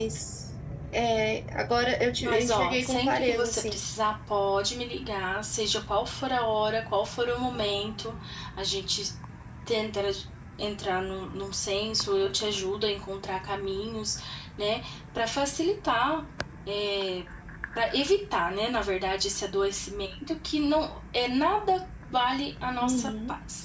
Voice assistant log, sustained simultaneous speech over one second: present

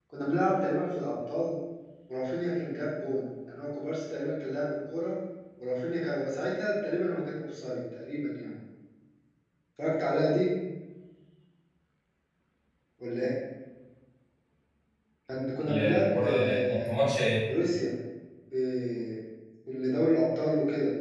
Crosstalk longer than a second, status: present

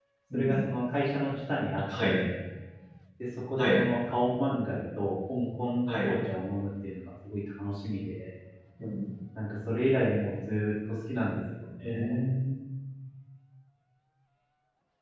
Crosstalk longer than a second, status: none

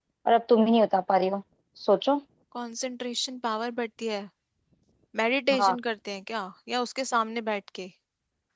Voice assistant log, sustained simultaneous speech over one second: none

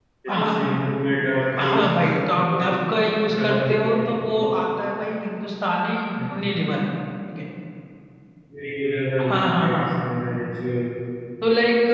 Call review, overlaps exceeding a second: present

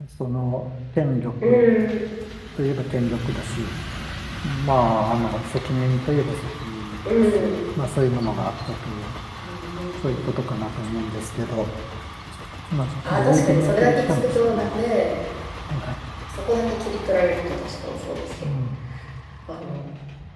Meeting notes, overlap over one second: present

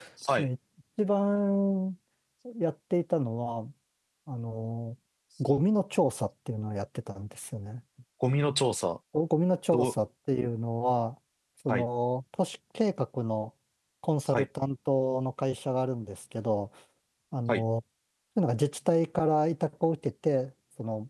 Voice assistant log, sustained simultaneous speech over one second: none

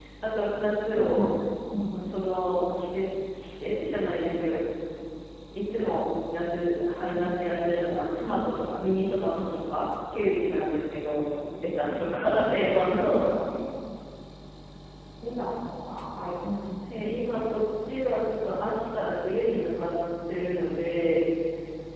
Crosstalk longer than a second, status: none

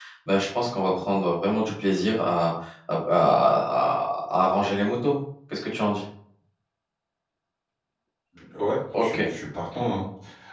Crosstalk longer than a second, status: none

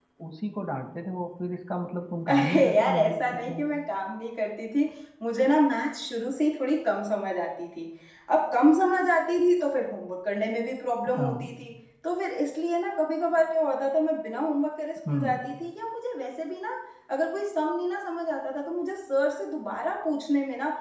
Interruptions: present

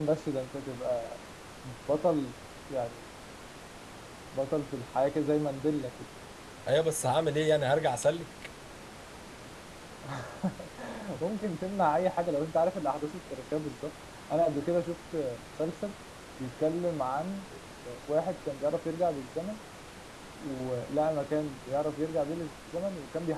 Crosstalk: none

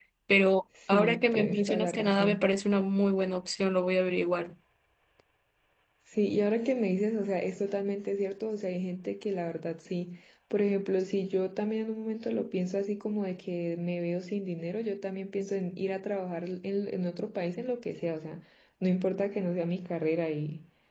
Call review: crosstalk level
present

